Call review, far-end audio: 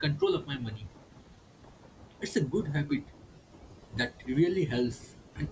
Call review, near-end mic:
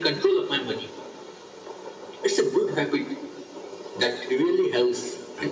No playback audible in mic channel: No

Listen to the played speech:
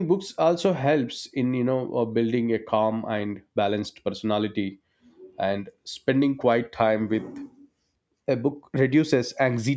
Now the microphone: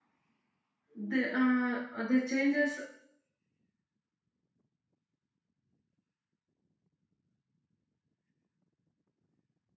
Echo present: No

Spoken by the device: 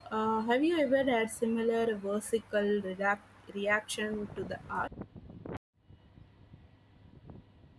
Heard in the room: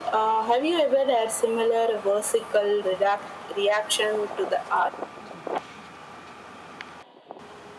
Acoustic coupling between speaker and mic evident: Yes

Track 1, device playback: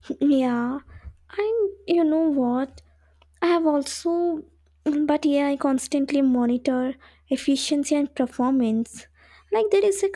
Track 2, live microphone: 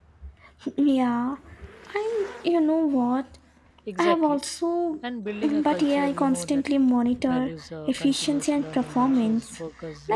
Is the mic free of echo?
No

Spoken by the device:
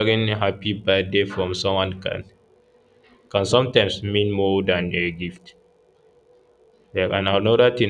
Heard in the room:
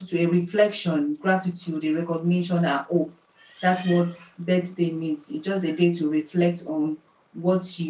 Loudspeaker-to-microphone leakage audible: No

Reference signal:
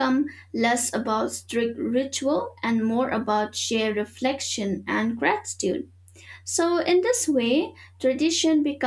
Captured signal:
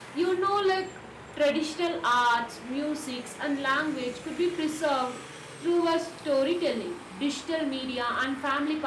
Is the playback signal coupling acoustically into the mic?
No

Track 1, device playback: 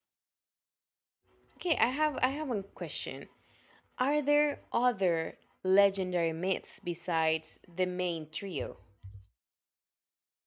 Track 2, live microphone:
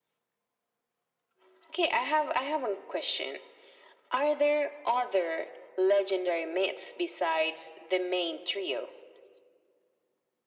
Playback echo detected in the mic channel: Yes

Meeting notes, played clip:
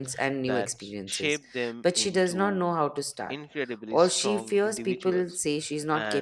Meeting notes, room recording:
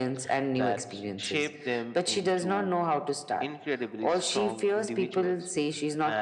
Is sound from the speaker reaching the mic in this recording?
Yes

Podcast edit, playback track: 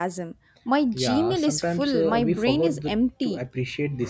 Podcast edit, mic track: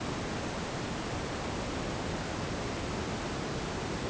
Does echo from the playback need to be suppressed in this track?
No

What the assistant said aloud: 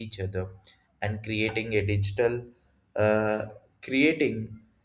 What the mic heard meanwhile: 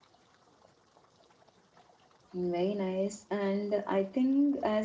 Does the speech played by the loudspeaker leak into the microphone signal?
No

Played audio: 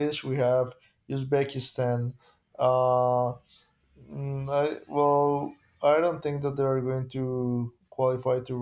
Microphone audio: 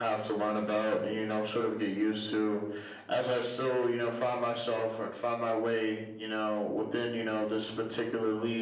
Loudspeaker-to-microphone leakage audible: No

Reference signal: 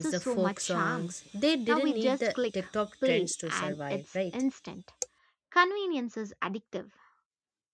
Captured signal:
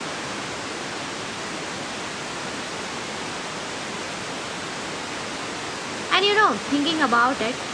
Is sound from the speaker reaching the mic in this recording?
No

